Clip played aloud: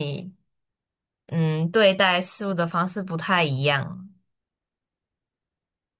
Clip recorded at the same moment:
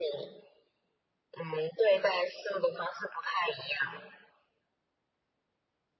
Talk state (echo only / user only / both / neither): echo only